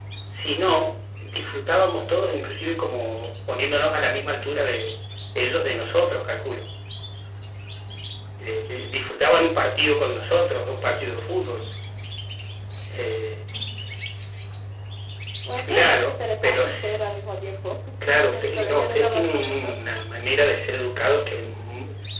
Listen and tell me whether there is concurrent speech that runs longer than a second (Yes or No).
Yes